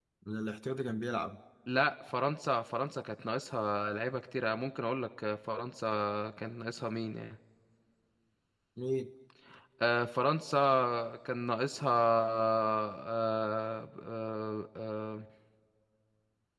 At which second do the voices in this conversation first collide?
none

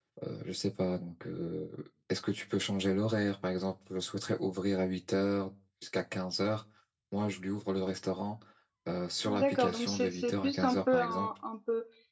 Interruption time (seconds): 9.2 s

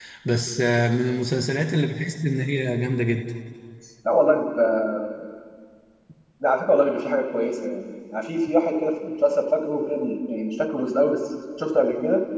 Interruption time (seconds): none

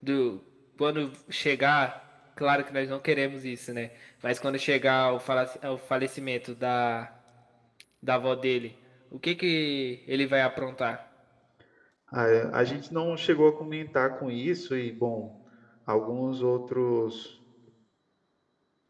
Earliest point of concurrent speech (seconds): none

